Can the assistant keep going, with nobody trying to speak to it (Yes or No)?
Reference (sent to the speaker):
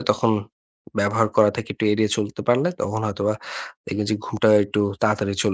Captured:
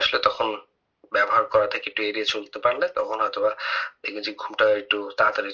Yes